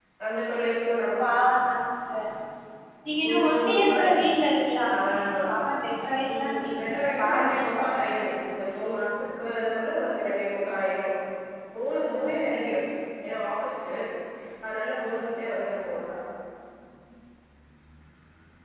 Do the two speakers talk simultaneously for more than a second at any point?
Yes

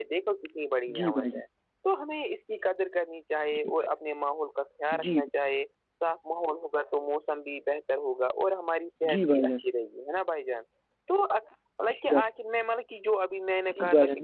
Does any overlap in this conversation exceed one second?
No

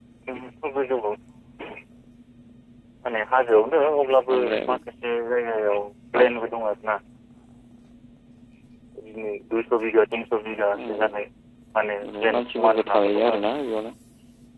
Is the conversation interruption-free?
No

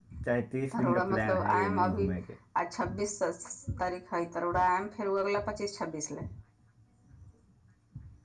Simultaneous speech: Yes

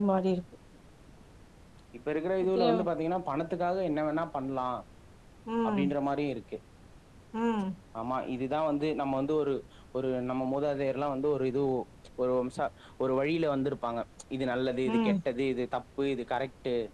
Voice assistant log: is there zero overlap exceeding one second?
Yes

